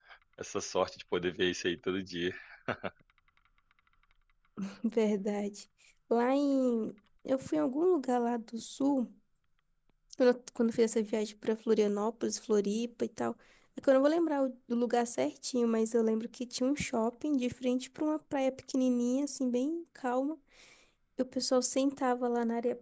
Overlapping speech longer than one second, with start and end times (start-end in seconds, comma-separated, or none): none